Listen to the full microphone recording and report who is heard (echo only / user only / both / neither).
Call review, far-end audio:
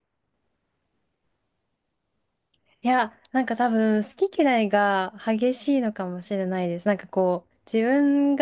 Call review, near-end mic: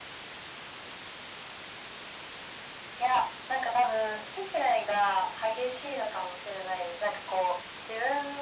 echo only